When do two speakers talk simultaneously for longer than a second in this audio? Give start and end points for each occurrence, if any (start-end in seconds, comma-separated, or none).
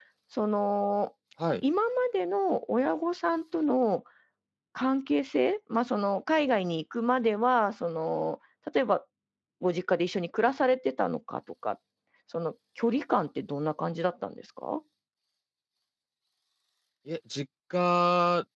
none